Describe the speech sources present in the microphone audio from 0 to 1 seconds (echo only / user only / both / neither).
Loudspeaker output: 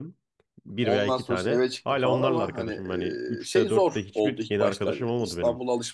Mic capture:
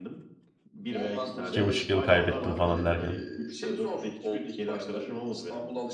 echo only